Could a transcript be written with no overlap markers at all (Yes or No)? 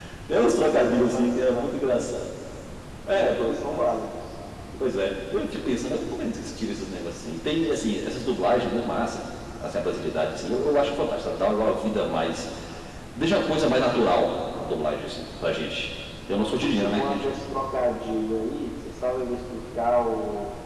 No